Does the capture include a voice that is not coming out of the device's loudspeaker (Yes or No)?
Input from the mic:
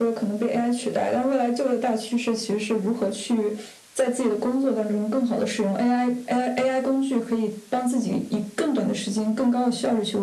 No